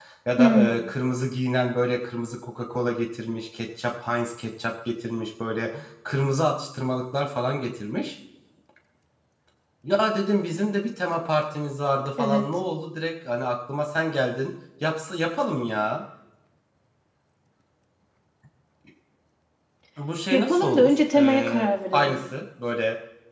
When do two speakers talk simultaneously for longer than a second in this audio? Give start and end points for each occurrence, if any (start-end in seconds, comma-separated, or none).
20.3-22.2